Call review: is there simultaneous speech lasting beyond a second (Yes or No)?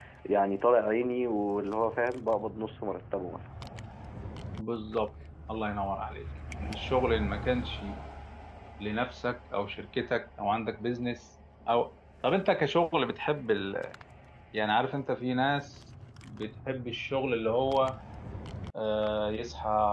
No